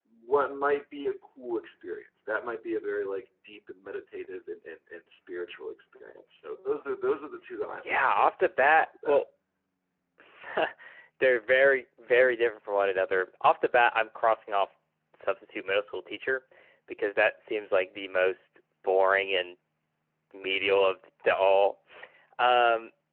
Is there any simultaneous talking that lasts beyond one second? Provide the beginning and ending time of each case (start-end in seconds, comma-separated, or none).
7.8-9.2